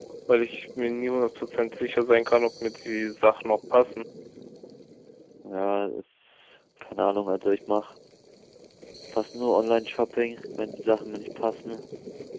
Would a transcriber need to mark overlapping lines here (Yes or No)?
No